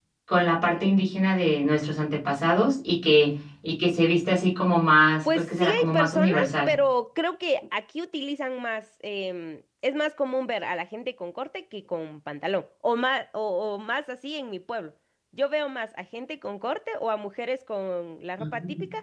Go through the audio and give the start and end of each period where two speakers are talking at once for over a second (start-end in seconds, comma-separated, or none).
5.2-6.8